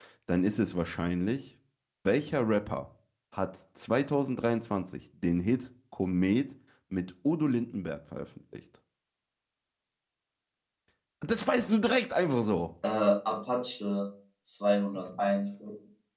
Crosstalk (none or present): none